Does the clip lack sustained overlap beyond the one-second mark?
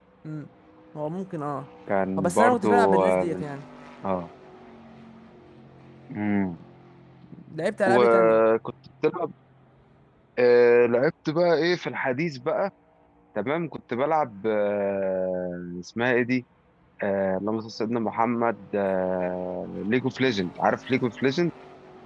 No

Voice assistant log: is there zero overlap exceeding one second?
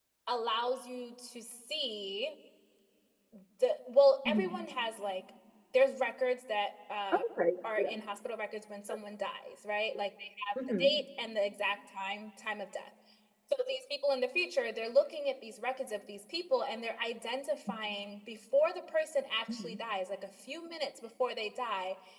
Yes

